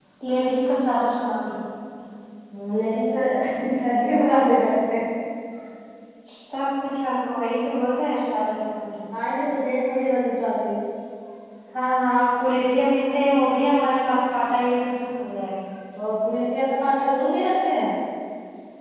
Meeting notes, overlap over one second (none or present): none